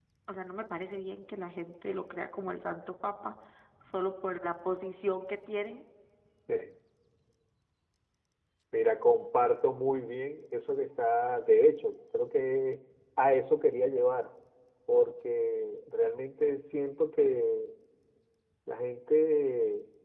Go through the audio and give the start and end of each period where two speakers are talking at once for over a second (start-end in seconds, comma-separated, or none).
none